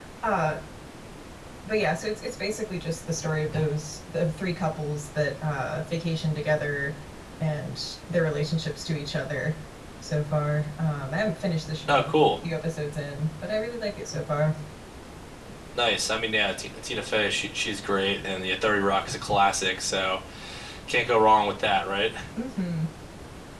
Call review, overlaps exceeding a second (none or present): none